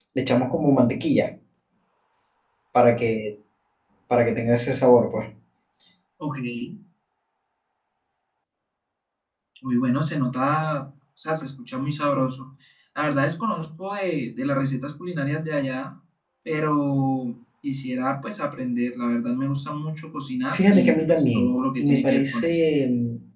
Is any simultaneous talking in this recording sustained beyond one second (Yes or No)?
Yes